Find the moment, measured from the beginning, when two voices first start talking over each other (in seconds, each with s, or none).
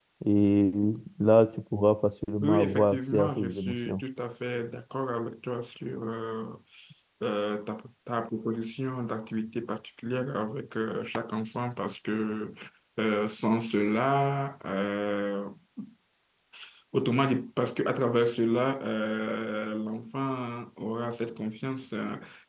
2.4 s